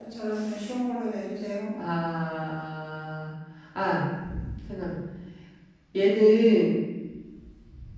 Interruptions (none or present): none